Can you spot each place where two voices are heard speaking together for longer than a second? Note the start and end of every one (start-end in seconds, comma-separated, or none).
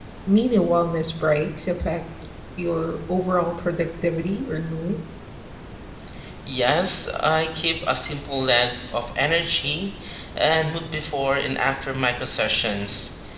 none